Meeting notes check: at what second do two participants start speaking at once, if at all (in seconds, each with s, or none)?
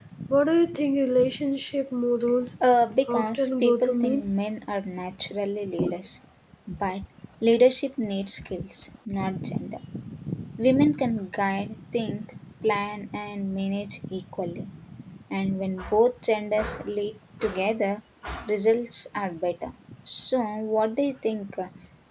3.1 s